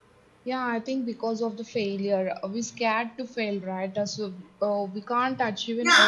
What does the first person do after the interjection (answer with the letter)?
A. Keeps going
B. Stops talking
B